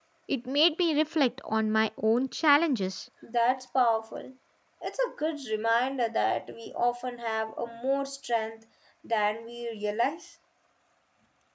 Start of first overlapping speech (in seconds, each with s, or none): none